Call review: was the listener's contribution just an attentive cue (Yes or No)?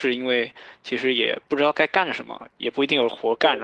Yes